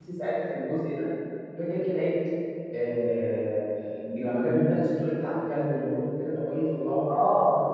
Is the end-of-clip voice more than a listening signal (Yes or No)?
Yes